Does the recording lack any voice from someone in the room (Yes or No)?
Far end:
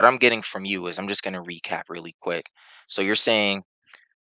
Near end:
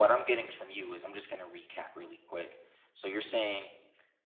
Yes